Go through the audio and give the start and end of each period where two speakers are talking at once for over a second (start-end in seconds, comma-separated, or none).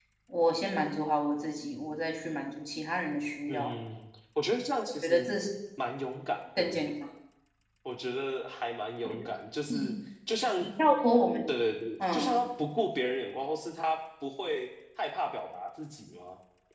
none